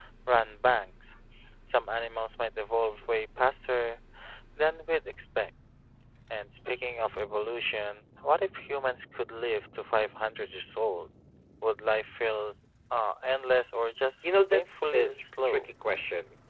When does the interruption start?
14 s

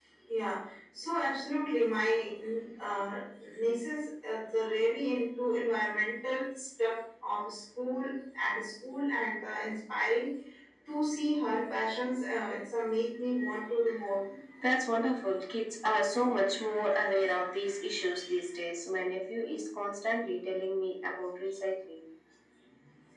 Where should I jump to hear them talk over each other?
none

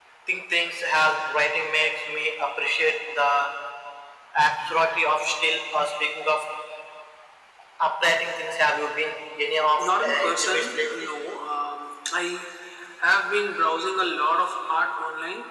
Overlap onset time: 10 s

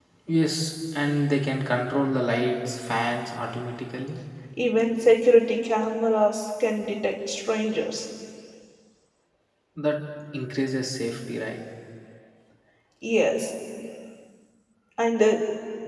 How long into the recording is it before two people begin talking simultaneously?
none

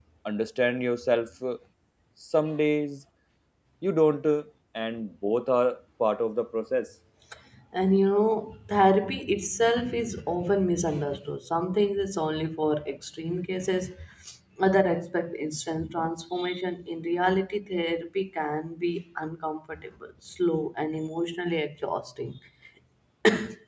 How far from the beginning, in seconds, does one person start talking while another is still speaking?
none

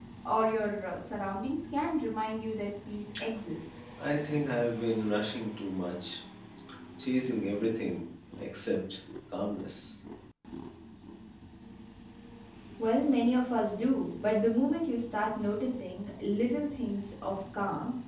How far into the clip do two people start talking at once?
none

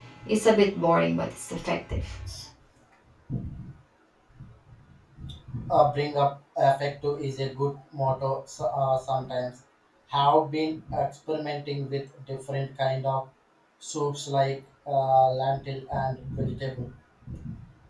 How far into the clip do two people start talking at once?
none

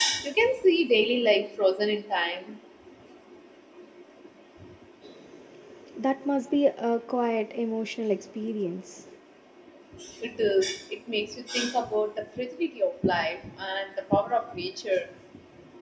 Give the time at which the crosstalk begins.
none

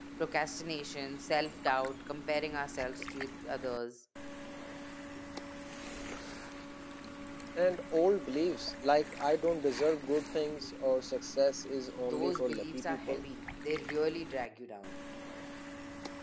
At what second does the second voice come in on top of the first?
12 s

